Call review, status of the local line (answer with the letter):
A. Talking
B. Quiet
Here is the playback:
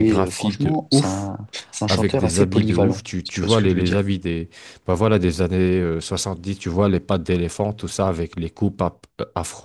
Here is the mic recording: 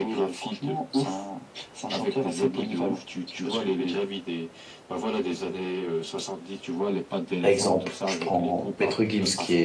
A